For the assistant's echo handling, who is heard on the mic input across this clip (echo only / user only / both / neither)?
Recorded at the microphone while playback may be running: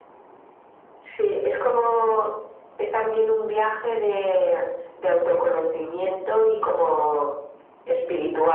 echo only